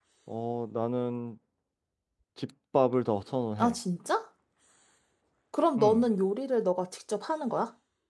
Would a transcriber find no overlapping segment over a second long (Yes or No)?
Yes